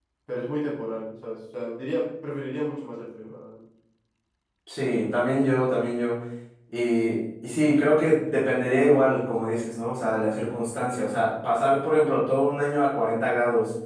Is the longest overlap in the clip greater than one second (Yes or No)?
No